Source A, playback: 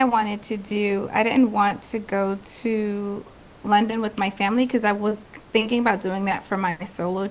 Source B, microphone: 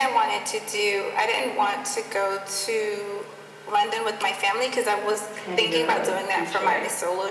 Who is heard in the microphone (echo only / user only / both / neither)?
both